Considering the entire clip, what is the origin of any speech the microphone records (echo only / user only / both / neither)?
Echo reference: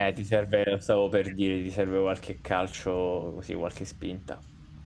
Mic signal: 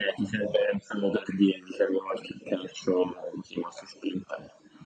echo only